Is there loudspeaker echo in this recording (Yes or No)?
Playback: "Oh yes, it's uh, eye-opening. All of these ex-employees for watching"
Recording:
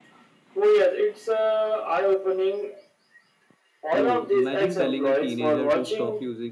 Yes